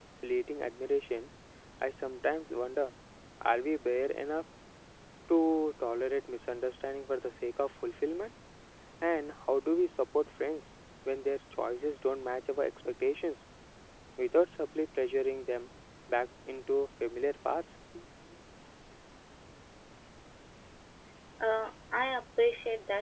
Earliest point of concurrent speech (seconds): none

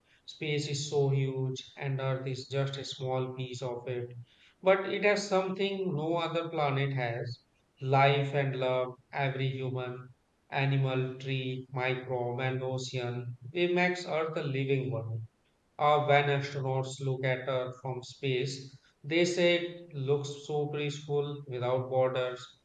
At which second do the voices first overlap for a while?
none

